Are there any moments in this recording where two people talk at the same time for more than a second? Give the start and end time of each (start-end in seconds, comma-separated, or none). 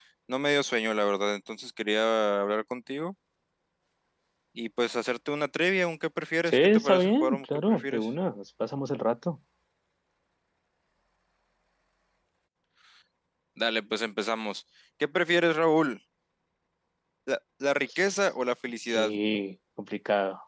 6.4-8.1